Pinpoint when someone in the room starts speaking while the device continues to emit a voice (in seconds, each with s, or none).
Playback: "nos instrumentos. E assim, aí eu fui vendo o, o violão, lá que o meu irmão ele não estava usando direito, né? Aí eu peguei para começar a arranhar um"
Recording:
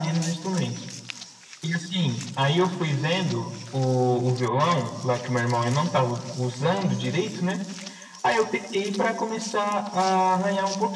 none